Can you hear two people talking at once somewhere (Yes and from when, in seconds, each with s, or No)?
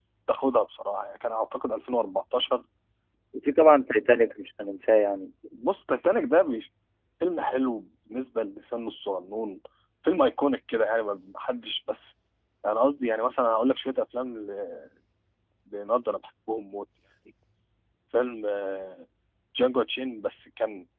No